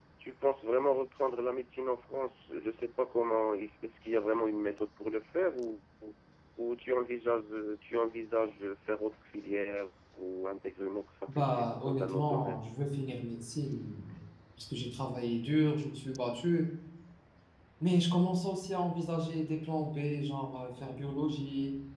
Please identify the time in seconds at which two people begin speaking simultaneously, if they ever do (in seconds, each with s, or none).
11.3 s